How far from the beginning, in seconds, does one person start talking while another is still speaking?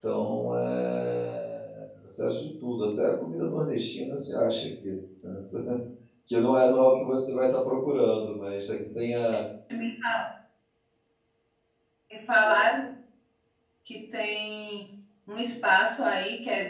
none

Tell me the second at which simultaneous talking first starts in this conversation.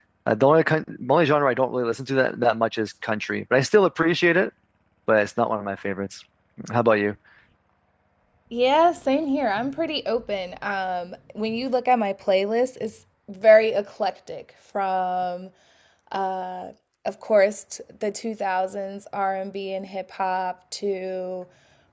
none

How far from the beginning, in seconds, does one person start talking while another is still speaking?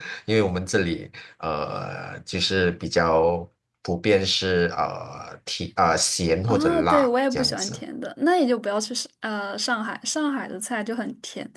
6 s

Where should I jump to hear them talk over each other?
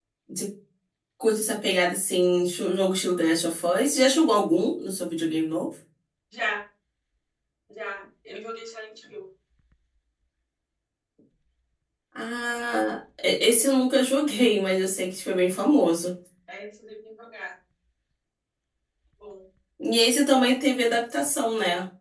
none

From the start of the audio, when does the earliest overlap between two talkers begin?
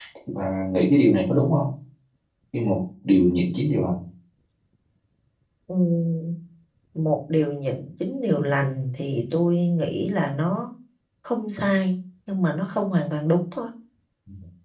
none

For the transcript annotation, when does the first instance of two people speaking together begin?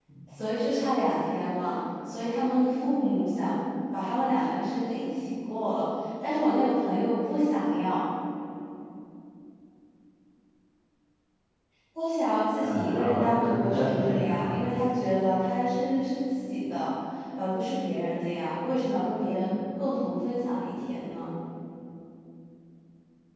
13 s

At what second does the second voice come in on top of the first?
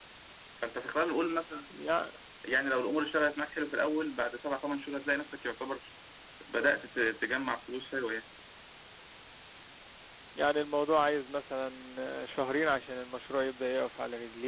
none

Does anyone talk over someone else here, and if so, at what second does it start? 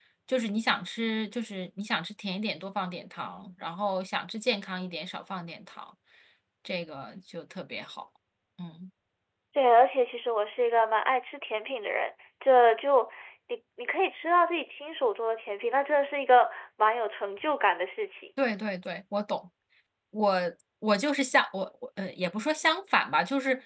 none

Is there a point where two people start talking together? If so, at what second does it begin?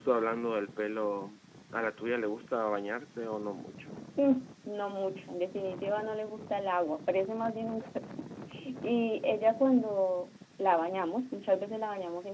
none

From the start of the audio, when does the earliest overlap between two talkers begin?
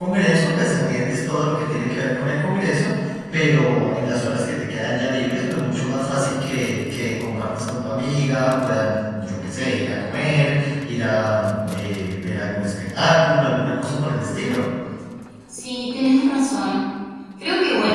none

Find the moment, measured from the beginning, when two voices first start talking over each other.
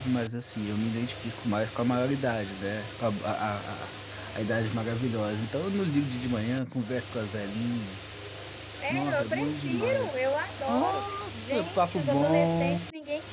9 s

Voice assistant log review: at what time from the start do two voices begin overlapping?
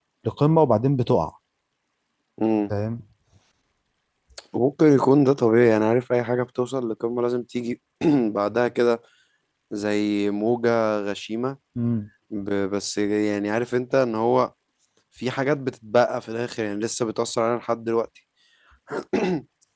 none

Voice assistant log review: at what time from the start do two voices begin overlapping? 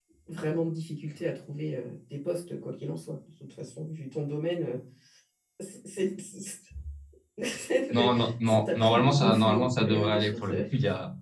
8 s

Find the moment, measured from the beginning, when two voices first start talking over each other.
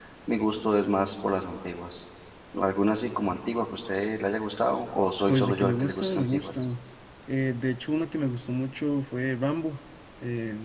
5 s

